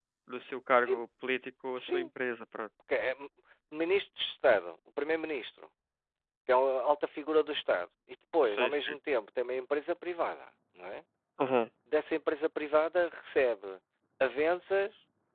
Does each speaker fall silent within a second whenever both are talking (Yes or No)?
Yes